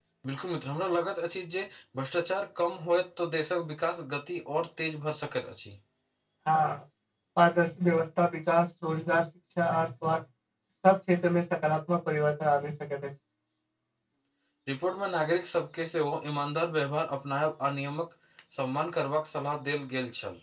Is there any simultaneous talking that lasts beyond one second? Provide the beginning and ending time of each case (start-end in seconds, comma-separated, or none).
none